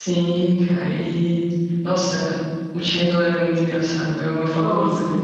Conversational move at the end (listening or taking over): taking over